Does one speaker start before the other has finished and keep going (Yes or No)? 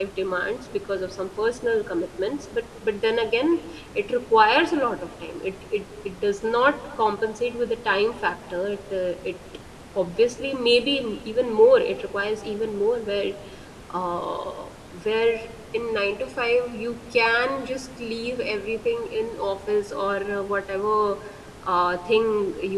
No